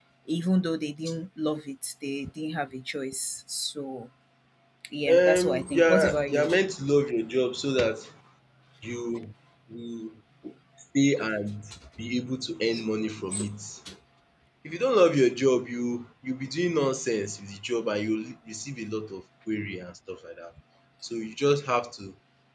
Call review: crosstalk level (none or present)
present